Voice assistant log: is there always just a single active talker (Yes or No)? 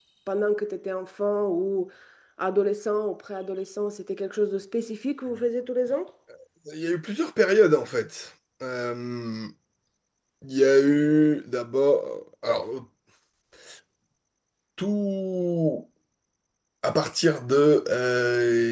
Yes